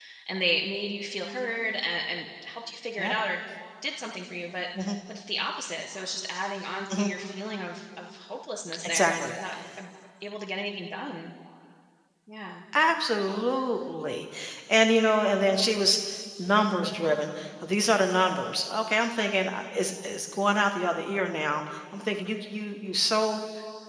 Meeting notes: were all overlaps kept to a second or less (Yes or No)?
Yes